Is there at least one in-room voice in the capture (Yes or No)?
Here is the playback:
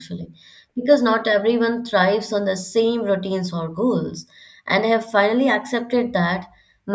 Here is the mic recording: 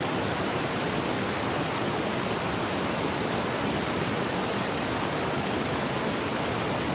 No